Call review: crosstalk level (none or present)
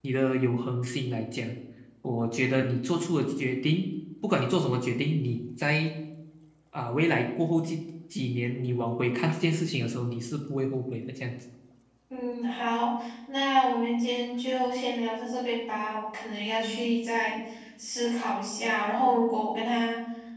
none